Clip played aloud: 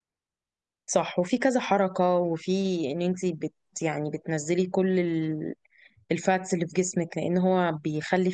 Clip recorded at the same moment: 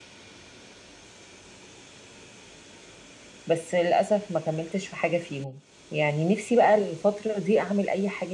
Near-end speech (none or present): present